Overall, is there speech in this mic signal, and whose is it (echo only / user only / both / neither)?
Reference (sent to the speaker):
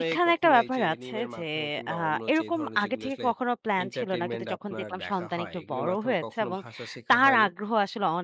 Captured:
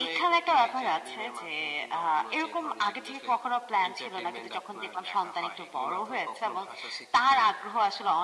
echo only